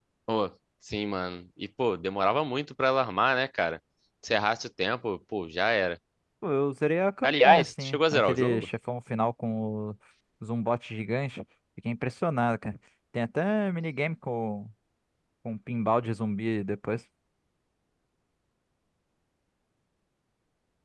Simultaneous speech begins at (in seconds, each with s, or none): 7.2 s